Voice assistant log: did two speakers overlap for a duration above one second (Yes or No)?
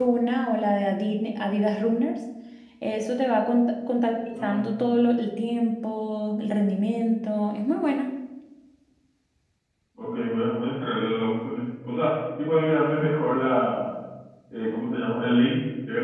No